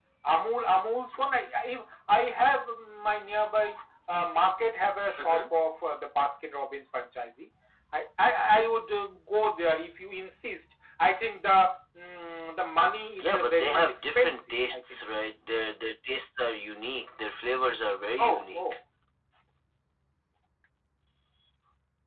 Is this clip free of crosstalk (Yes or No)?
No